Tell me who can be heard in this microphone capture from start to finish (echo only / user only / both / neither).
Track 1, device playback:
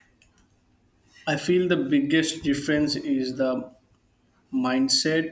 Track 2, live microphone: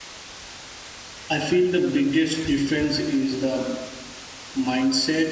echo only